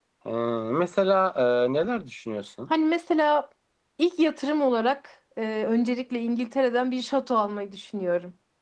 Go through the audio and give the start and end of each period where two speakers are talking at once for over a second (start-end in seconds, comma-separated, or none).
none